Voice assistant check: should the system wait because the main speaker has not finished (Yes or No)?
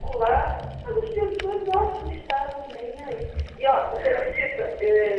Yes